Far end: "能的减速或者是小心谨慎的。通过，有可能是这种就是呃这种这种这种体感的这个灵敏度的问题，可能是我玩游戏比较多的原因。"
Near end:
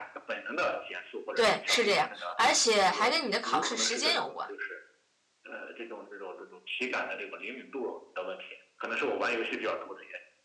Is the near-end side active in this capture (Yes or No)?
Yes